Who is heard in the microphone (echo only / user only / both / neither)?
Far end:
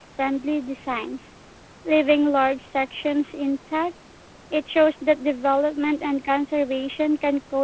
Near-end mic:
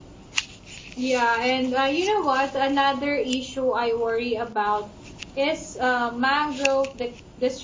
user only